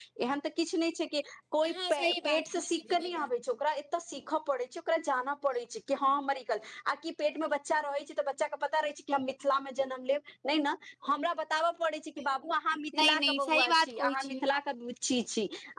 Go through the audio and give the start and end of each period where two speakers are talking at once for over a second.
1.7-3.1, 13.0-14.5

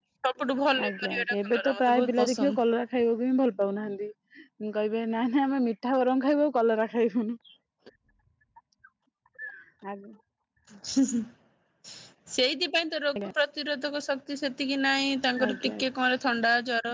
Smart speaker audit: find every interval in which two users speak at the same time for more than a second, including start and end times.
0.9-2.5

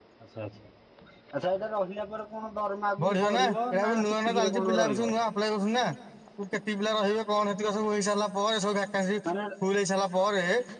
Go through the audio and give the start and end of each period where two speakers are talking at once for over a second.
3.0-5.1

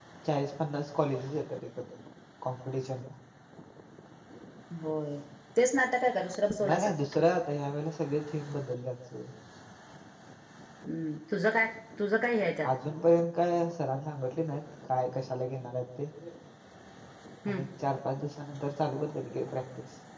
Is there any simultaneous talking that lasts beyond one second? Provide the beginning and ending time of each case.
none

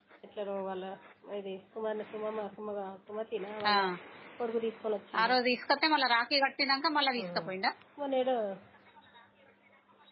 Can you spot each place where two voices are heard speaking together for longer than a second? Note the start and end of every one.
none

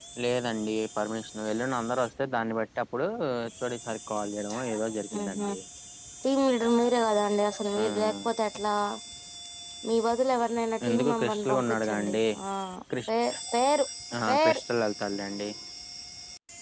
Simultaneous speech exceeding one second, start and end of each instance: 10.9-12.2

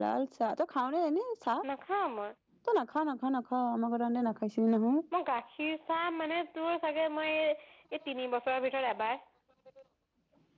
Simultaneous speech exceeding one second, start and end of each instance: none

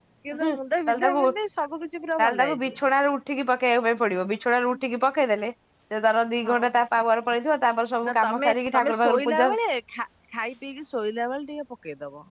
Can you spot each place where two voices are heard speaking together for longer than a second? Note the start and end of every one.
8.1-9.5

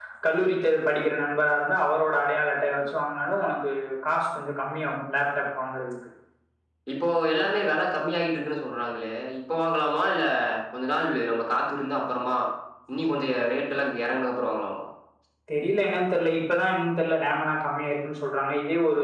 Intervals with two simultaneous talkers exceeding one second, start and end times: none

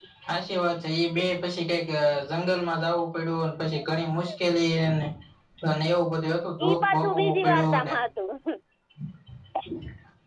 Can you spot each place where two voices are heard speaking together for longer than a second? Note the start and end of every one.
6.7-7.9

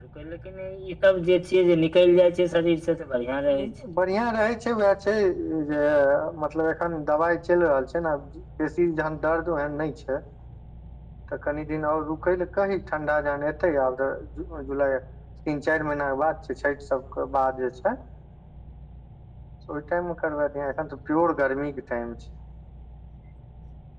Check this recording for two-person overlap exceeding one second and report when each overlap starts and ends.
none

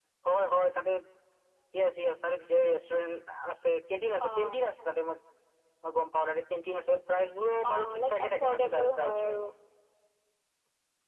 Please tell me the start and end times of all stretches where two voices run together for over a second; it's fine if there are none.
7.7-9.4

